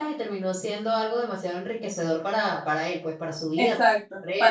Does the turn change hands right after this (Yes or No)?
Yes